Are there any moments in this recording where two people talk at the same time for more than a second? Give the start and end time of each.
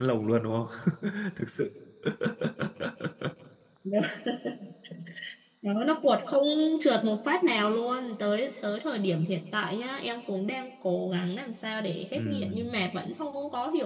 none

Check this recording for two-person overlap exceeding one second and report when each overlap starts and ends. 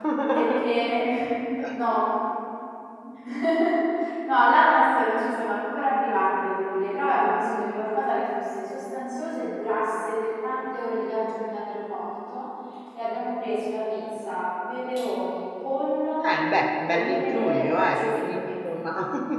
16.9-18.4

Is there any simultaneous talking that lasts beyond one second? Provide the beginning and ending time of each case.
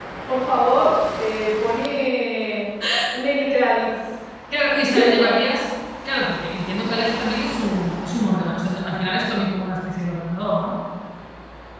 none

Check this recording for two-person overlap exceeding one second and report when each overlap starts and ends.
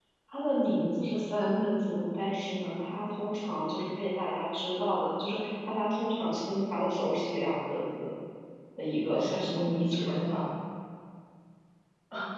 9.0-10.4

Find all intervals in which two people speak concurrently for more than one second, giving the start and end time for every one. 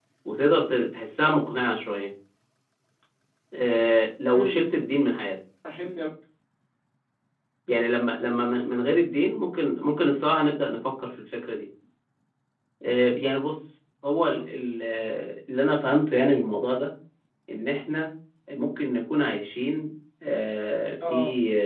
none

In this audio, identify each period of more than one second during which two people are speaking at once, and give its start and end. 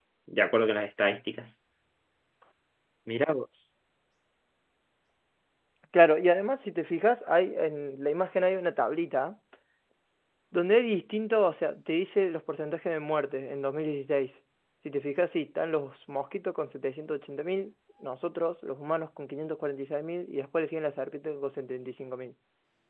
none

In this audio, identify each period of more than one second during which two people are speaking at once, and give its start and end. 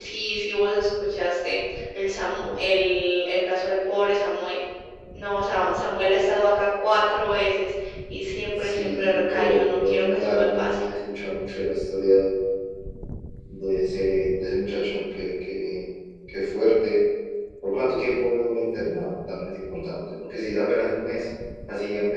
8.6-10.8

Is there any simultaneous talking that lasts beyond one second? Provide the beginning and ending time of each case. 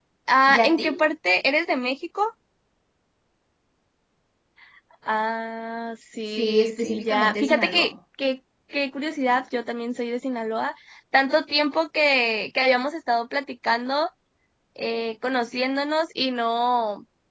6.4-7.8

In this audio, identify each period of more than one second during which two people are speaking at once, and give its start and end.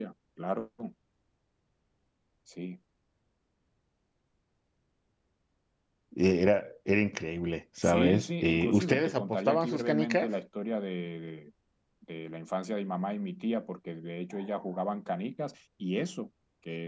7.8-10.3

